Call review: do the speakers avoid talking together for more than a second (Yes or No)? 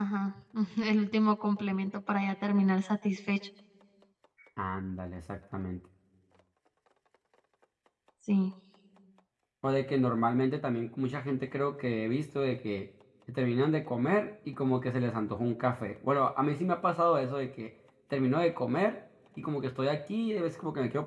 Yes